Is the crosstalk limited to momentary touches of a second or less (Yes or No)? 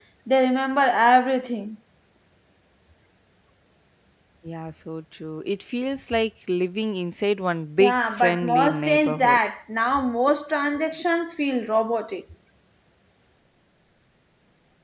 No